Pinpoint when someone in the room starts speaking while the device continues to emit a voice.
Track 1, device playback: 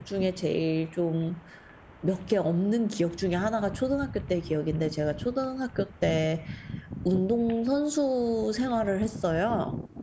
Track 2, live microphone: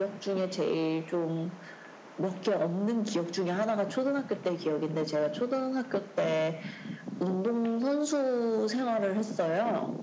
none

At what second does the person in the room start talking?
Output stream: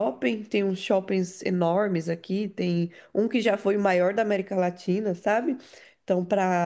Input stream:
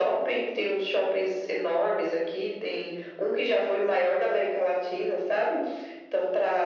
none

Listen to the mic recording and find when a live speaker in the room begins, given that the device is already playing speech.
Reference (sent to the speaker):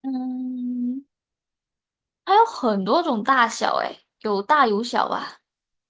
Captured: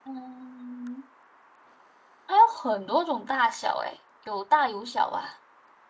none

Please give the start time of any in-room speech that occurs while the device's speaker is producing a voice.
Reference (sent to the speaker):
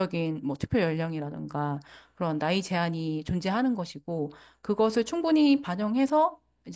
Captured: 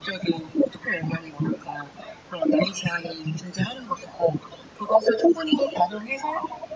none

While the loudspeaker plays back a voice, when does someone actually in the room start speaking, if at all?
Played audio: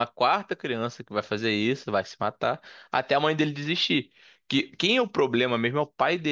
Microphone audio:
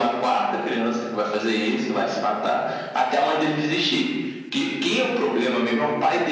none

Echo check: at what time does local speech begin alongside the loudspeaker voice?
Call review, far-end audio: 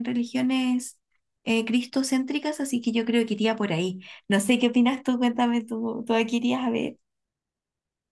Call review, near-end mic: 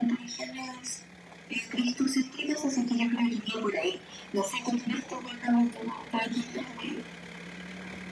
none

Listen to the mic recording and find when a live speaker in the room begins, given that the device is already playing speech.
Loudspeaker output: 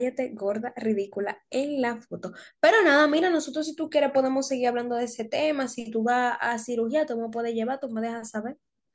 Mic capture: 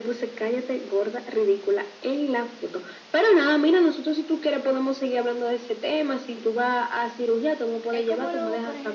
7.9 s

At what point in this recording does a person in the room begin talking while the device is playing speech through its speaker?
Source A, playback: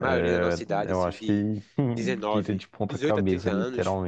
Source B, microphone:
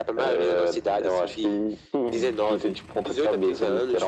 none

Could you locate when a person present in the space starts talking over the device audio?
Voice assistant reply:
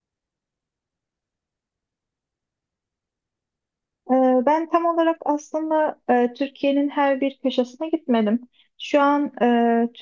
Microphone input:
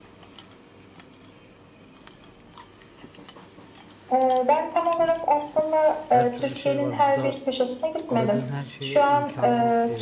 6.1 s

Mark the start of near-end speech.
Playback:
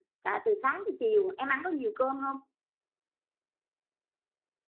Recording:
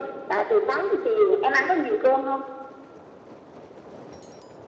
none

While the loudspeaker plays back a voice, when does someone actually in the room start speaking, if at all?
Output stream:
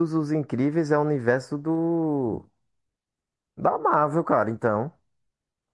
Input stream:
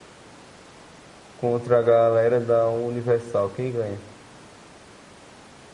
1.4 s

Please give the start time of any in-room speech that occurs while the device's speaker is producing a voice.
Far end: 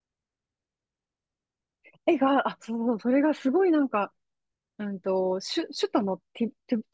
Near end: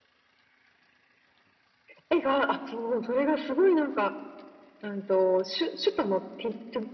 none

